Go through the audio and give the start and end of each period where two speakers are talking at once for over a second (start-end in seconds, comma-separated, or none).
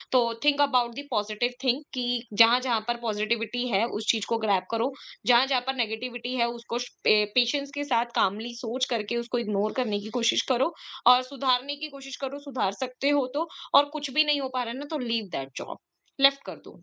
none